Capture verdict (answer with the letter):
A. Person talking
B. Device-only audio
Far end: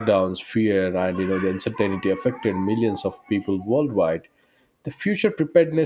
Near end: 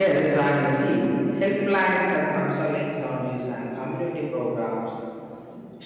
A